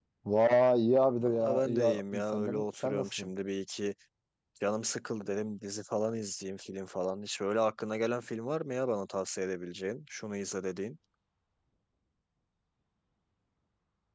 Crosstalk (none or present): present